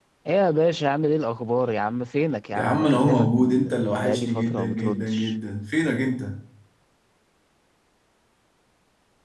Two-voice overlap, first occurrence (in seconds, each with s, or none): 2.5 s